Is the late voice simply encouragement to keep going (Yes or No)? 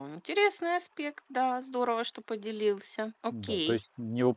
No